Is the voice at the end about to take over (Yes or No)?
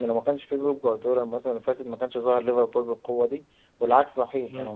Yes